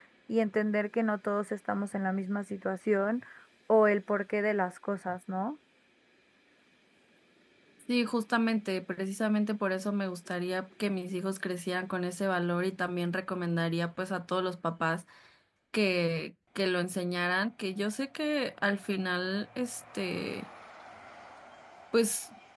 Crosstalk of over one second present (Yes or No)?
No